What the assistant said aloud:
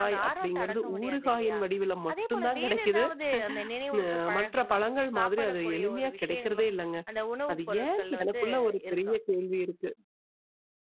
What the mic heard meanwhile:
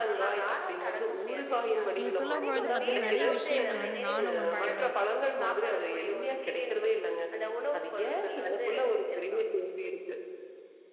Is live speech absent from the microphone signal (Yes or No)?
No